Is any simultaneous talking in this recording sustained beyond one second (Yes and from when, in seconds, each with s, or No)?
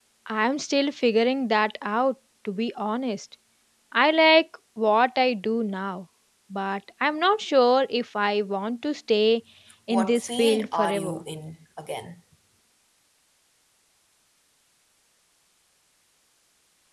Yes, from 9.9 s